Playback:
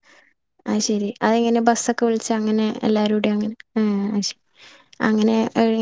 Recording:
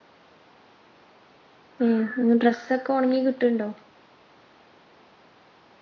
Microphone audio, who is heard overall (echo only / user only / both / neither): user only